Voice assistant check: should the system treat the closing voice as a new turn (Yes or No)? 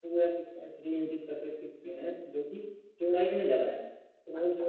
No